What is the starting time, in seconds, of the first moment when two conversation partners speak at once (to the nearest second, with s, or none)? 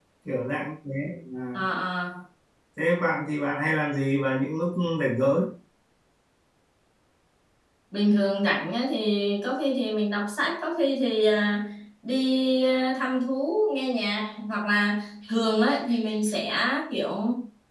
none